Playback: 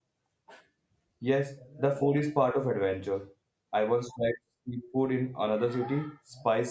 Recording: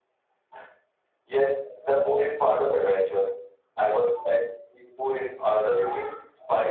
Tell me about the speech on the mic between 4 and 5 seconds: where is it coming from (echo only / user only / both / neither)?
echo only